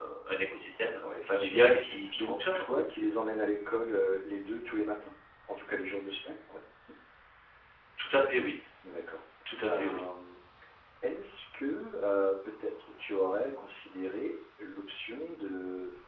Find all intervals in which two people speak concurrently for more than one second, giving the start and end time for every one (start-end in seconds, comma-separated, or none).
1.0-2.8